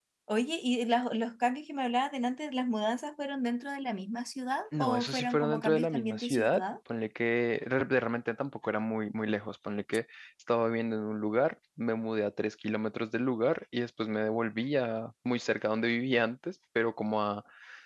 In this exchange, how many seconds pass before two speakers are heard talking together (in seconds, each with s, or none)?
4.7 s